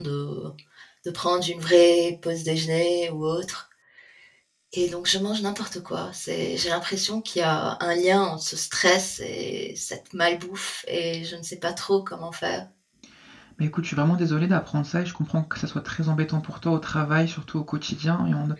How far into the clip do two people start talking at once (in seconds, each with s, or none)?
none